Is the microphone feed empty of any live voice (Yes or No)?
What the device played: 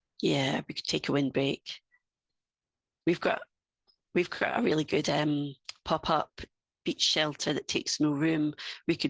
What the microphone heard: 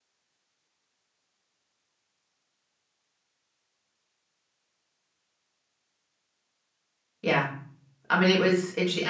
No